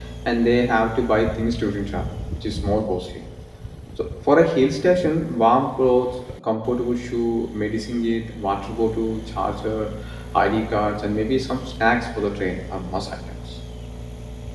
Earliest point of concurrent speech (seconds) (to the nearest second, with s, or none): none